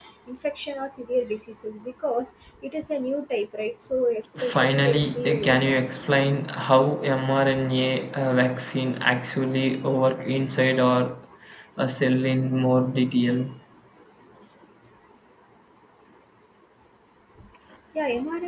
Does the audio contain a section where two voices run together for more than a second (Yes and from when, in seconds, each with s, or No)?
Yes, from 4.4 s